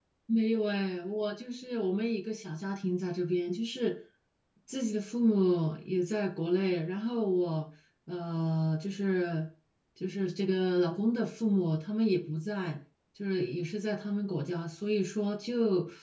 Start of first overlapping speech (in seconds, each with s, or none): none